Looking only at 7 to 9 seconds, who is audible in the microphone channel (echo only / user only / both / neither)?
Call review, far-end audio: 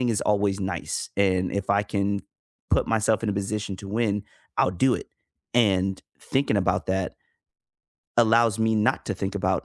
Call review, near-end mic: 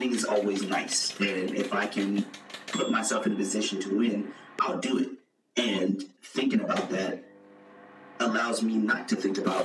echo only